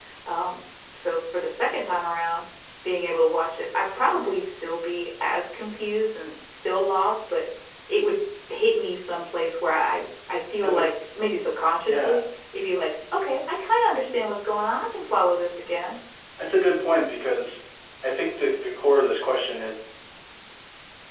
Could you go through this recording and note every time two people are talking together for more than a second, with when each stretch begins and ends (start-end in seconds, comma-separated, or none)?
none